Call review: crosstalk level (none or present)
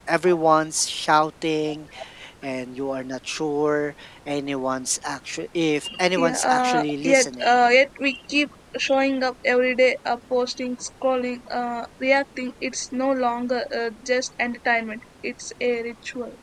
present